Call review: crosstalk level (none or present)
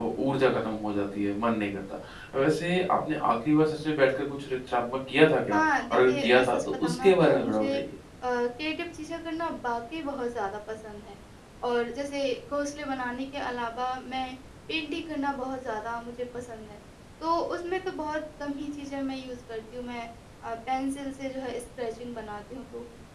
present